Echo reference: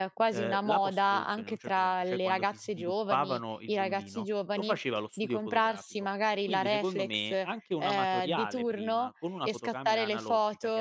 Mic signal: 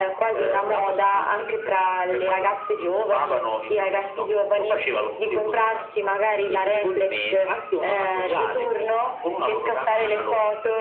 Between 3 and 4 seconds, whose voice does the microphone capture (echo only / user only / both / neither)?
echo only